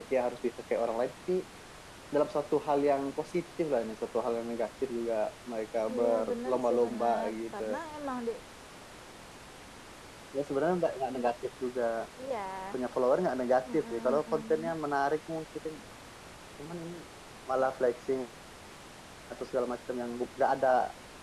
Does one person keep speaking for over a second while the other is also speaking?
Yes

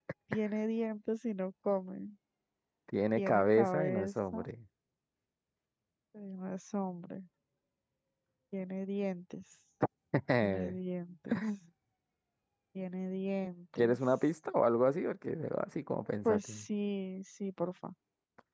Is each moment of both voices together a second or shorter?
No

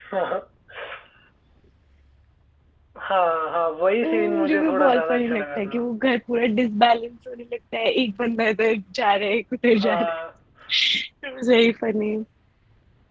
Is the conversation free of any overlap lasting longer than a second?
No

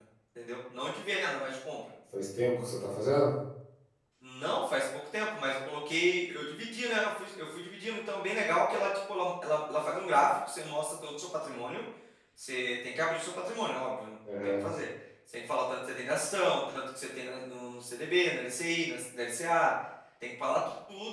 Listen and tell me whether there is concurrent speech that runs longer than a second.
No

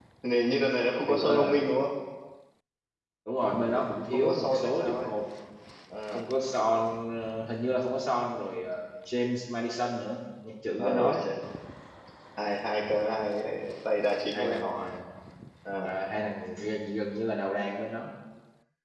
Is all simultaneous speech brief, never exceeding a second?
No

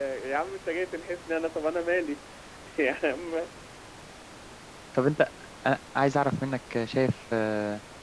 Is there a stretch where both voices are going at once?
No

